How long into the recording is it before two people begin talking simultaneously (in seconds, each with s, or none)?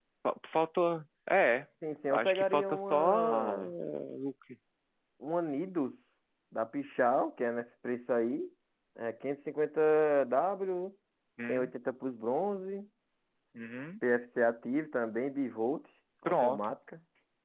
2.1 s